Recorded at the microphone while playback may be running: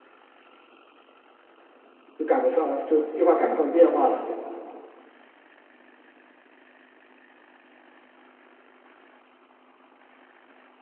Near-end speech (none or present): present